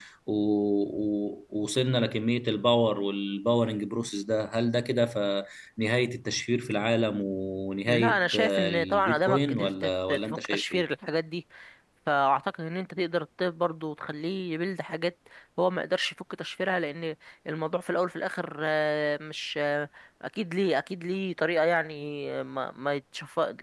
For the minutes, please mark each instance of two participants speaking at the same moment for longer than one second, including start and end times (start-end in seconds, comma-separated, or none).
7.9-10.8